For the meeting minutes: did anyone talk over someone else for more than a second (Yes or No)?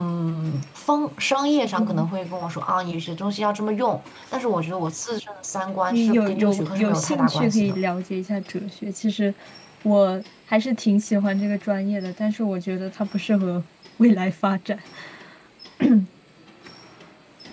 Yes